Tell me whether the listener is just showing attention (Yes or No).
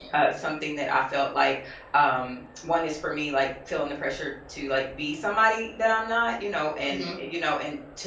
Yes